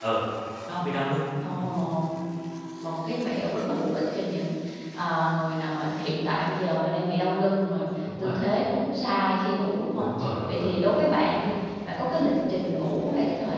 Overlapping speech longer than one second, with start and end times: none

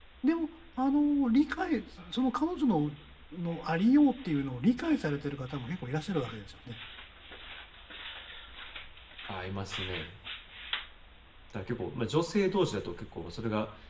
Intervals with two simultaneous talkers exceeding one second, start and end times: none

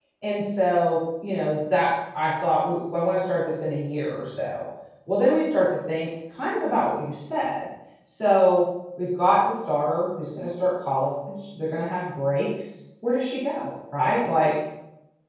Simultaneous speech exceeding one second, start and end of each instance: none

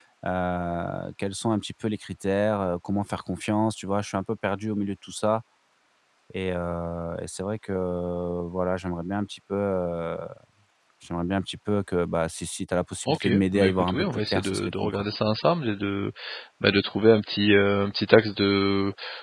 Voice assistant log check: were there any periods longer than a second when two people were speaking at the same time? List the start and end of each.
13.1-15.1

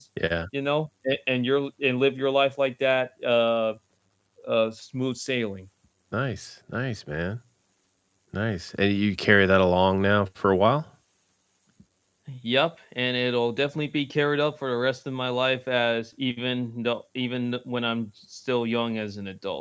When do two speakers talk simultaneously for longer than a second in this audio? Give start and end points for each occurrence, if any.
none

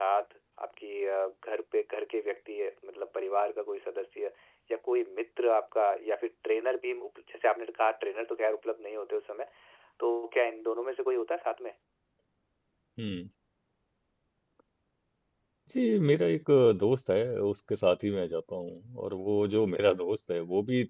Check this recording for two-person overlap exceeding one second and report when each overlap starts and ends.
none

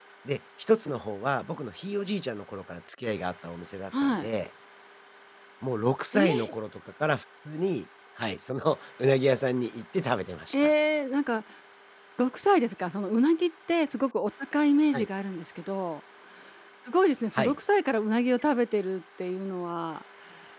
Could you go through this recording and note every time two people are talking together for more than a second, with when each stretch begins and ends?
none

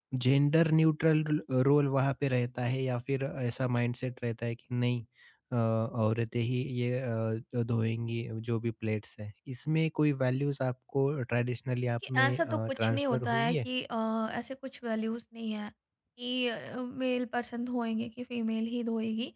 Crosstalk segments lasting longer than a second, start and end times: 12.1-13.7

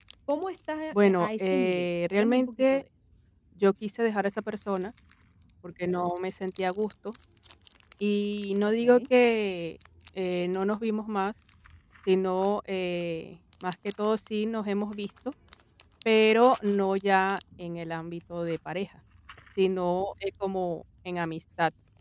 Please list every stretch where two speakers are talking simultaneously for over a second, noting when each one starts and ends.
1.0-2.8

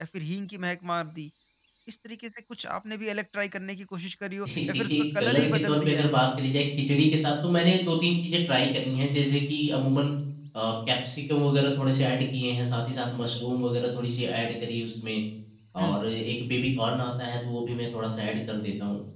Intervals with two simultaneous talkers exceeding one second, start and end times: 4.6-6.1

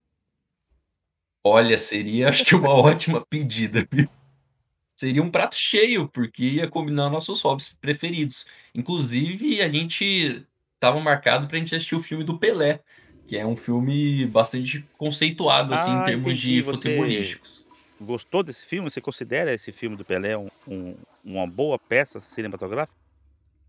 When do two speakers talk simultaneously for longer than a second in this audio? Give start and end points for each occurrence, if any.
15.7-17.4

